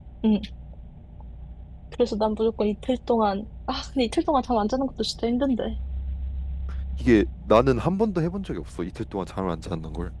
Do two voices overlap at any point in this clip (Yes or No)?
No